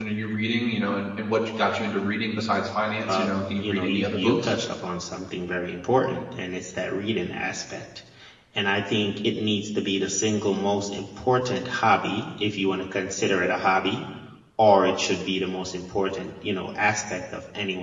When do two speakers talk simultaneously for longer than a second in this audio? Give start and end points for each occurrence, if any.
3.1-4.5

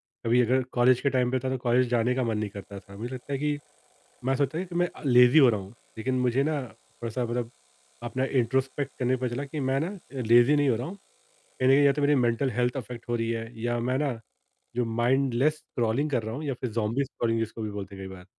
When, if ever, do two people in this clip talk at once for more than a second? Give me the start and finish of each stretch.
none

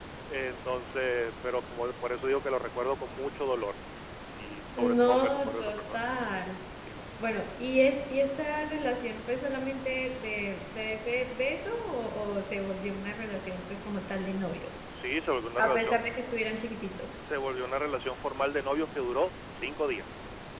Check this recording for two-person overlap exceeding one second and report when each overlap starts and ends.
4.8-6.0

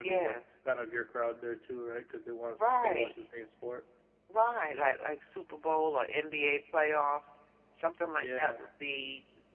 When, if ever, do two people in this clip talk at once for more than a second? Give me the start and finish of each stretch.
none

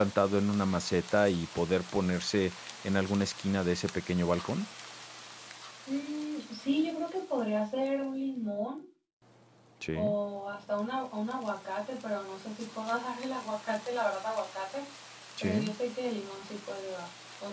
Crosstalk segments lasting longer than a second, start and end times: none

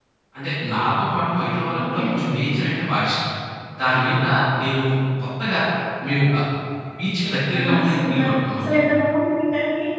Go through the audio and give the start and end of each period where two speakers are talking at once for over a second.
7.6-8.8

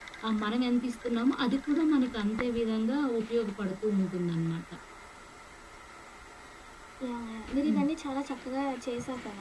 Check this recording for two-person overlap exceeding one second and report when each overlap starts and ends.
none

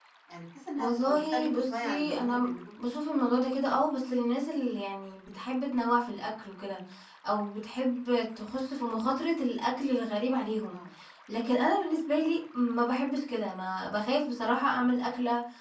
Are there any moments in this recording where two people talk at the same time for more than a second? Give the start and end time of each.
0.8-2.5

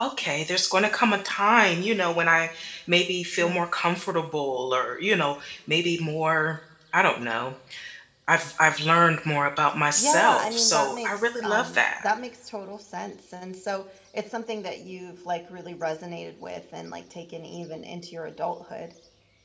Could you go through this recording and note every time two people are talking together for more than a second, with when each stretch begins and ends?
9.9-12.0

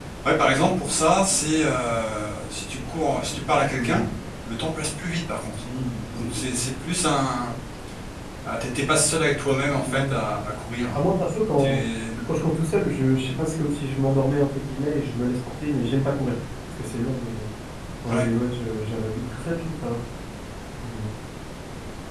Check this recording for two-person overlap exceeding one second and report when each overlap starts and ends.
none

